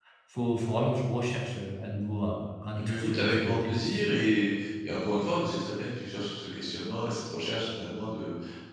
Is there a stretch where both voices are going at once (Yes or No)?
Yes